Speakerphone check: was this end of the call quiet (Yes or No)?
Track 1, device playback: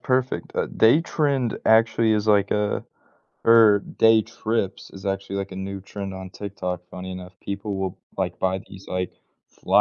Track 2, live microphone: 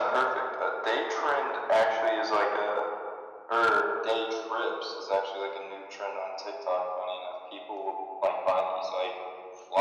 Yes